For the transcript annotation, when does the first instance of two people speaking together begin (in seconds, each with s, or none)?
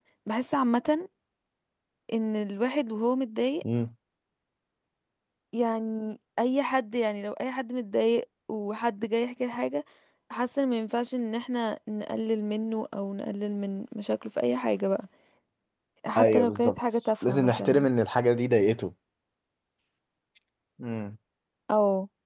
16.2 s